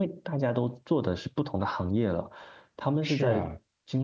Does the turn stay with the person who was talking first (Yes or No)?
Yes